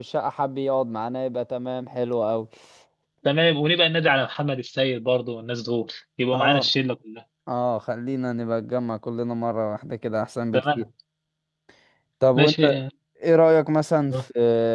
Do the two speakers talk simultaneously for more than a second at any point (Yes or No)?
No